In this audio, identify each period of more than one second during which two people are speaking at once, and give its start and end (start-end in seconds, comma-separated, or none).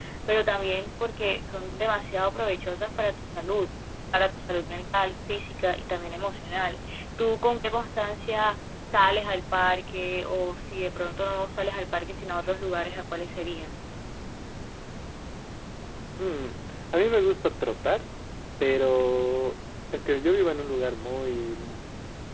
none